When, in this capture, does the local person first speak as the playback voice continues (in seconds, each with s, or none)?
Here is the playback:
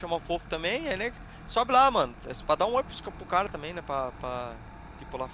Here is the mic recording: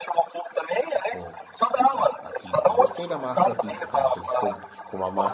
1.1 s